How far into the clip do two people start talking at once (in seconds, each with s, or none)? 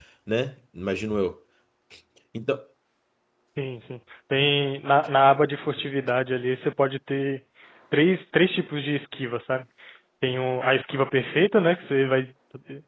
none